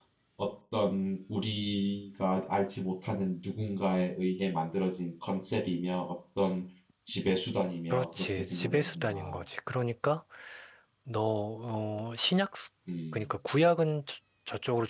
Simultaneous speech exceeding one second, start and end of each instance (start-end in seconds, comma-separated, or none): 7.9-9.4